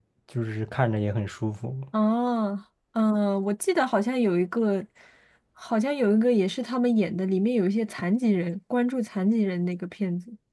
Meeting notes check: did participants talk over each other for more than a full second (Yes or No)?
No